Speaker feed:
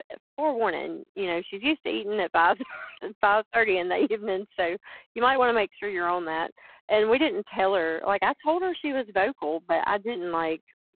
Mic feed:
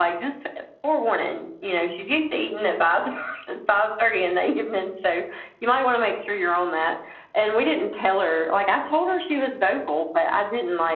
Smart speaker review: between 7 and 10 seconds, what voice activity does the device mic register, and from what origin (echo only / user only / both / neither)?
echo only